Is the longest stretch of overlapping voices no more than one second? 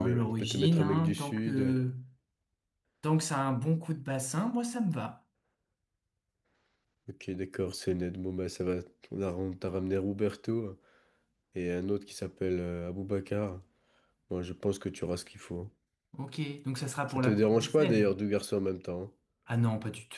No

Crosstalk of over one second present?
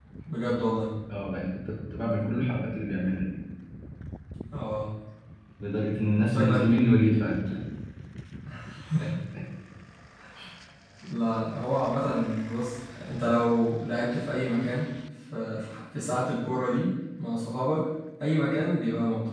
No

